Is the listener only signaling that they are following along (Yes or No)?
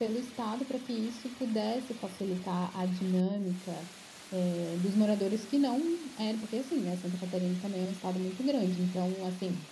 Yes